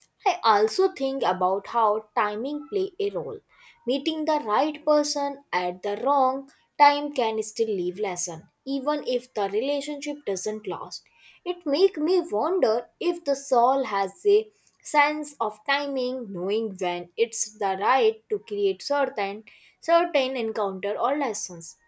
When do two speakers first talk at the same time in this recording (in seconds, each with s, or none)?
none